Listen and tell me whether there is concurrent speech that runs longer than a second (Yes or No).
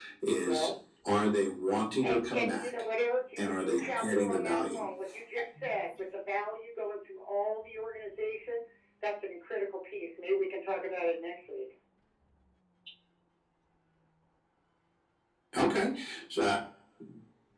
Yes